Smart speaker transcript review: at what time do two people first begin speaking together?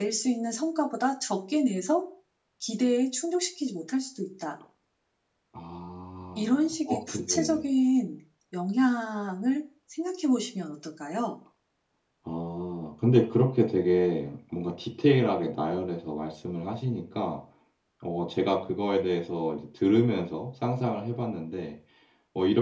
6.4 s

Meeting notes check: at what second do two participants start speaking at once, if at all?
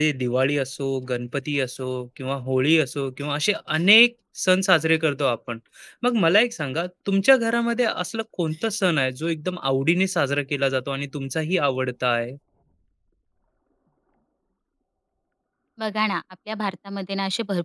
none

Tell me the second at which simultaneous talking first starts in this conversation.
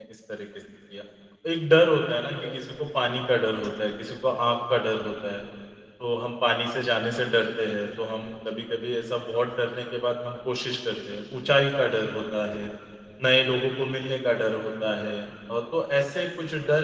none

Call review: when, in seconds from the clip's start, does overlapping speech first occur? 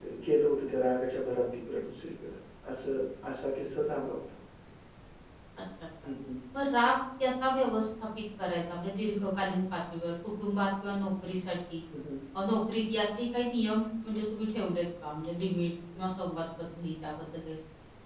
none

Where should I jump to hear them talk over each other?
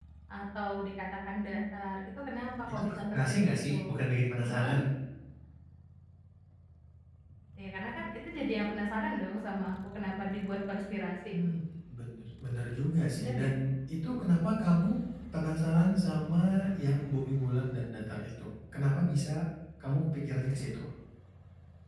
2.7 s

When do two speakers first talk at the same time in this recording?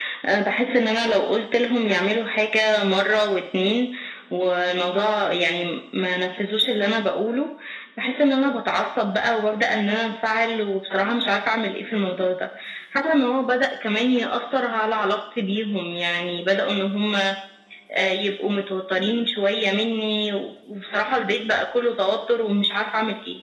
none

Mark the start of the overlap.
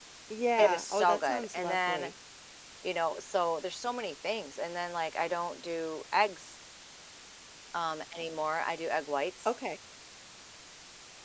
0.6 s

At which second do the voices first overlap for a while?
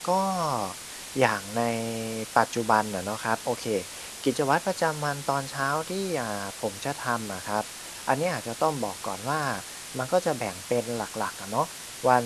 none

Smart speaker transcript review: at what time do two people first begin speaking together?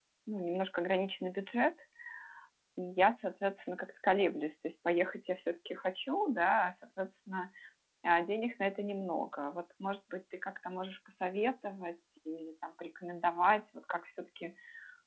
none

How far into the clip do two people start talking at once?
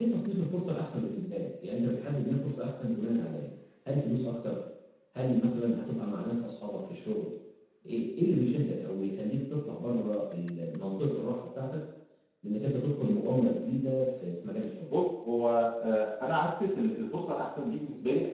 none

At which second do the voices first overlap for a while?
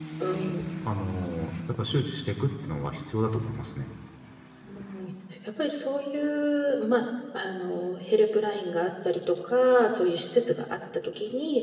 none

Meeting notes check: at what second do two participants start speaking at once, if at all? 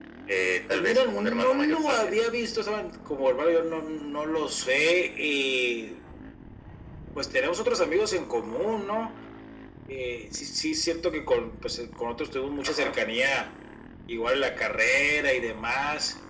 0.7 s

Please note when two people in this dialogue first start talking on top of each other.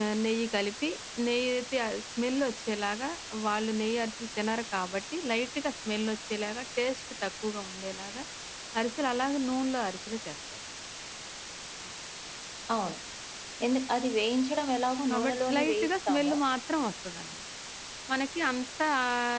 15.1 s

